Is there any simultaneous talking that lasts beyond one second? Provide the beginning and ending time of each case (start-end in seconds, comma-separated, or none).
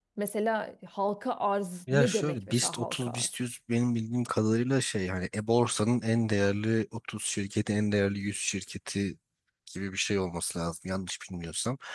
1.9-3.3